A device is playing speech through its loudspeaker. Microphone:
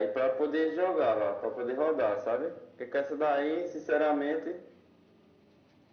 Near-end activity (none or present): none